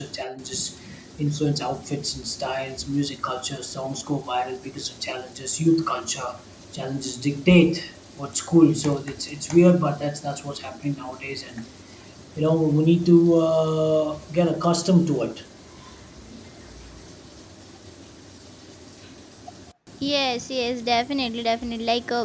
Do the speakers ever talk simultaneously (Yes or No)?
No